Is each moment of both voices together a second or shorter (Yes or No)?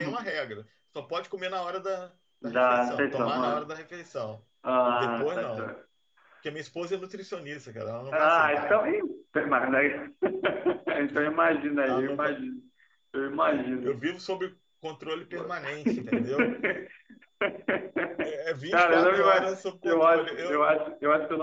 No